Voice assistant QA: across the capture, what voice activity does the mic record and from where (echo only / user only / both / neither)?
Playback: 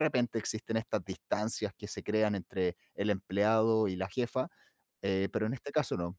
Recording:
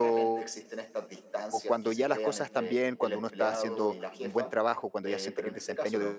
both